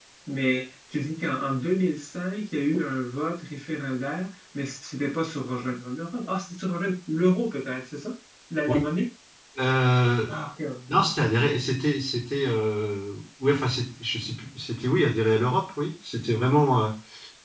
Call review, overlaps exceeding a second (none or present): none